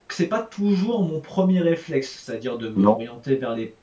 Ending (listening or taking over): listening